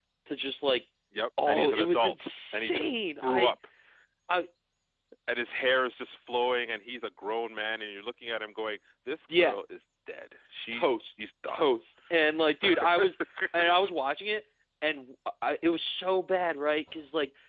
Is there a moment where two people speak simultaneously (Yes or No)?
Yes